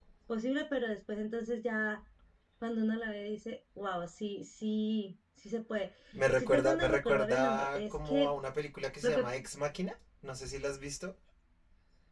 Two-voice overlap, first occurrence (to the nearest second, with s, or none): 6 s